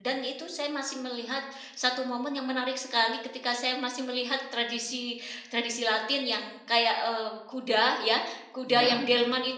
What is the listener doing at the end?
listening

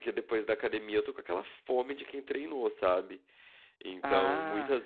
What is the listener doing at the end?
listening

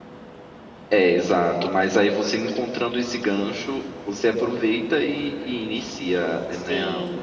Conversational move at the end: taking over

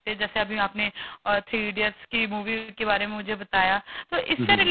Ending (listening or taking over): listening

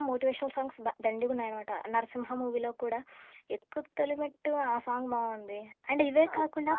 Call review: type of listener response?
taking over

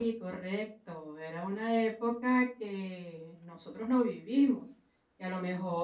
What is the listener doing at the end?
listening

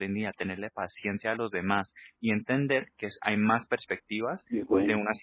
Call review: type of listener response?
listening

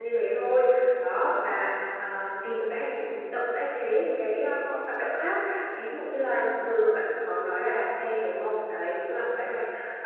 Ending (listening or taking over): listening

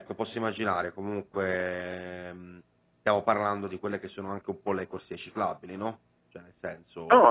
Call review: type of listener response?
taking over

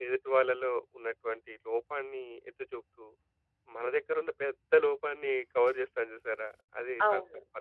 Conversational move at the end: taking over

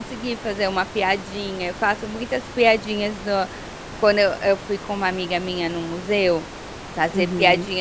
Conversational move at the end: listening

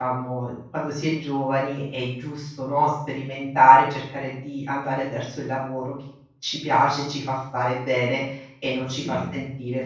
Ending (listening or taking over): taking over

